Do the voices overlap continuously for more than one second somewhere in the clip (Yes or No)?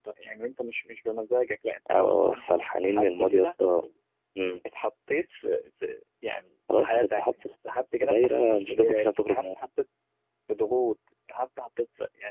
Yes